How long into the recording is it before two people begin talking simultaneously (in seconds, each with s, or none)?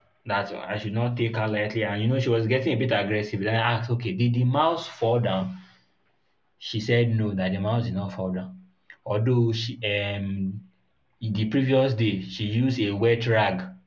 none